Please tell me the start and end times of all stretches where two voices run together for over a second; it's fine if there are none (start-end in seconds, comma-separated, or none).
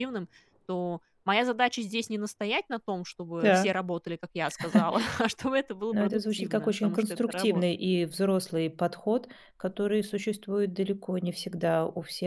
5.9-7.6